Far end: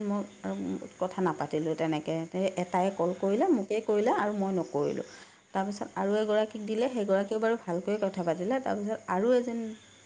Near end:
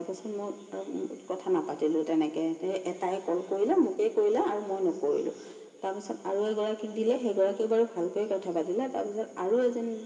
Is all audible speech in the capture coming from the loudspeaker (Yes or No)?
Yes